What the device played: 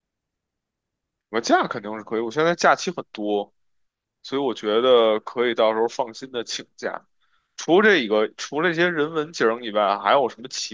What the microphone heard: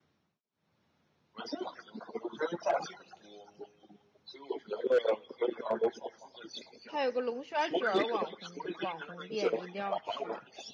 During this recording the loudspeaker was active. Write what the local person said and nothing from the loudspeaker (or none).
它有个龙虾卷儿网红网红店，一定要去。